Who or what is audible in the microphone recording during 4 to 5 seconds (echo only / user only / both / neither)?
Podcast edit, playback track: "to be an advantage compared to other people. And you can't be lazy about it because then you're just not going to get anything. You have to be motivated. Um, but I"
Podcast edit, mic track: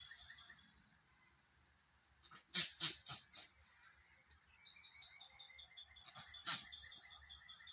neither